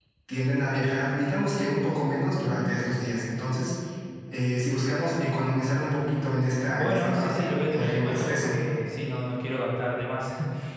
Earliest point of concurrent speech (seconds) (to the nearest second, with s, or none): 7 s